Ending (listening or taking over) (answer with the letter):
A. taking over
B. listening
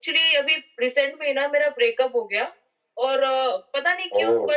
B